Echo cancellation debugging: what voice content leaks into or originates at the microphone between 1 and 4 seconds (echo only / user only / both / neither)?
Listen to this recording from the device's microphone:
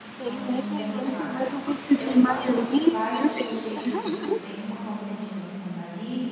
both